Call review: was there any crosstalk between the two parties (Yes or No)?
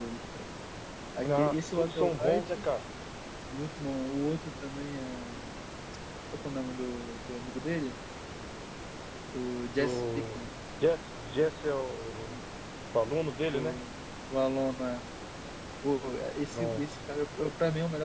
Yes